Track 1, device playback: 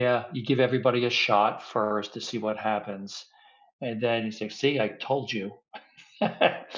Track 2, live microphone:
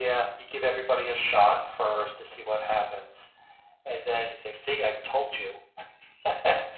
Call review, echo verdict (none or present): present